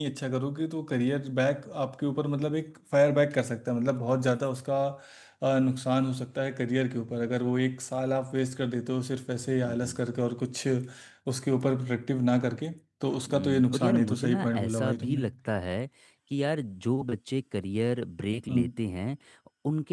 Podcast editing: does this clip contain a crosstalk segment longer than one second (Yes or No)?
Yes